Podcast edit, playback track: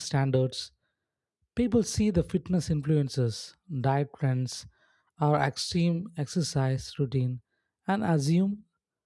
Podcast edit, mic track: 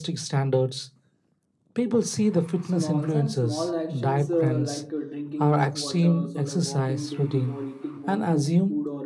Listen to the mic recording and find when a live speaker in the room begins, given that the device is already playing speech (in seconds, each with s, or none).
2.6 s